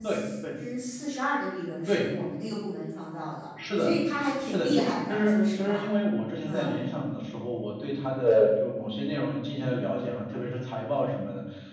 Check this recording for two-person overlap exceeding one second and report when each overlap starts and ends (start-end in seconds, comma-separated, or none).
4.5-5.9